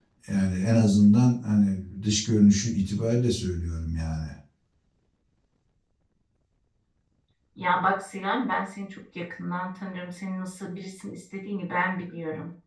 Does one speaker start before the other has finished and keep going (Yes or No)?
No